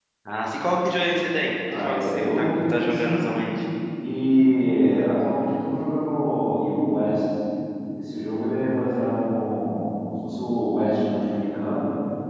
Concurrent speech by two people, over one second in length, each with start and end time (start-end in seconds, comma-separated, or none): 1.7-3.4